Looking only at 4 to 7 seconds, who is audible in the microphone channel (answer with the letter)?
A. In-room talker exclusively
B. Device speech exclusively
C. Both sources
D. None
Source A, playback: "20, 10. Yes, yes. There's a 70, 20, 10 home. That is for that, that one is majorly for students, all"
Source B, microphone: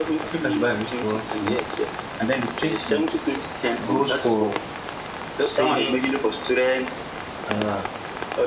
C